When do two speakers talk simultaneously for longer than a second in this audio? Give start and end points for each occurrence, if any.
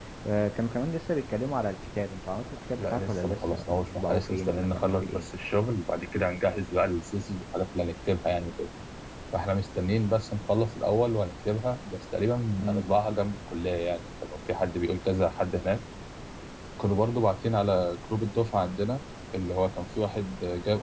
2.8-5.3

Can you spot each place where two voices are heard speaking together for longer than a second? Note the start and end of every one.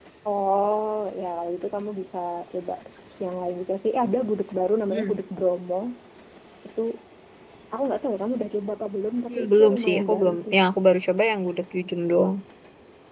9.3-10.6

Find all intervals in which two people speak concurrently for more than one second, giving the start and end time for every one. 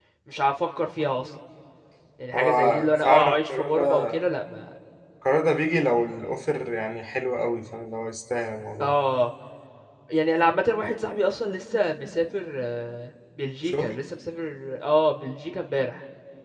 2.3-4.1

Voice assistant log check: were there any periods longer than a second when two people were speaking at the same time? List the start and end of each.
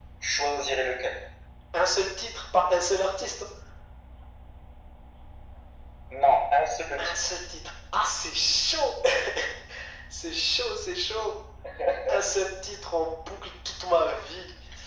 none

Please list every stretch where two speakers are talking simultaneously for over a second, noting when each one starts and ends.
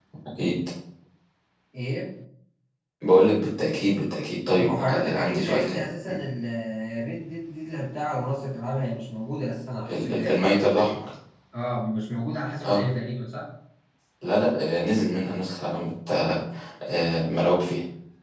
4.6-5.8

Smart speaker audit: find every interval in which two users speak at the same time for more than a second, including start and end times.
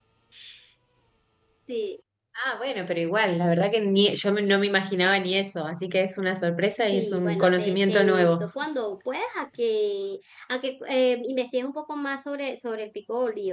6.9-8.4

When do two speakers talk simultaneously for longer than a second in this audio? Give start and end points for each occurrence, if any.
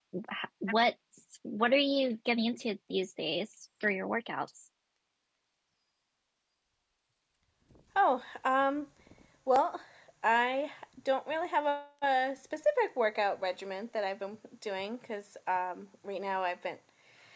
none

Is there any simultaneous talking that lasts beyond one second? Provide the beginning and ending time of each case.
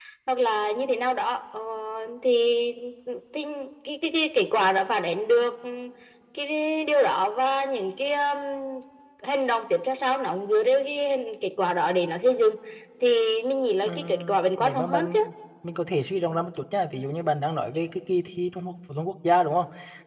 13.9-15.2

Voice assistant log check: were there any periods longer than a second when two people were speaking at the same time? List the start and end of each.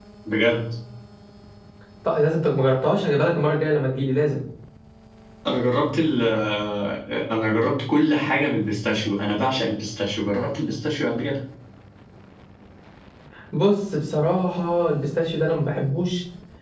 none

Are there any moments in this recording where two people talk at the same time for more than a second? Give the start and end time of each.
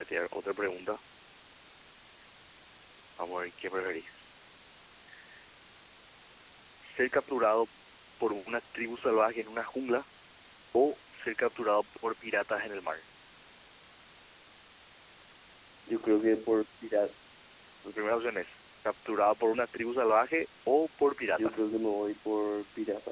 none

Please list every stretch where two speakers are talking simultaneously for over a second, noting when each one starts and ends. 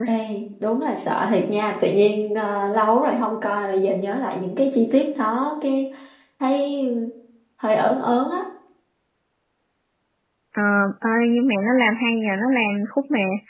none

